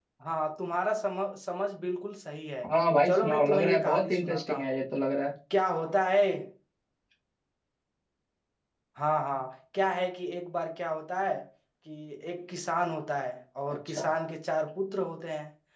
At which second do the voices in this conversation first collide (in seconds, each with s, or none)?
3.0 s